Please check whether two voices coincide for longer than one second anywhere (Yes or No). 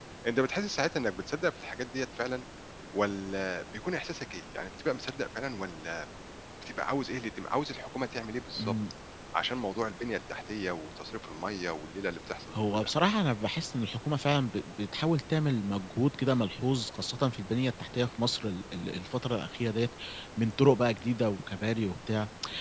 No